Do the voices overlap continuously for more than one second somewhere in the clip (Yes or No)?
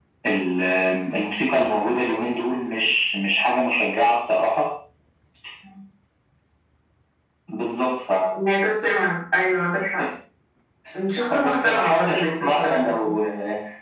Yes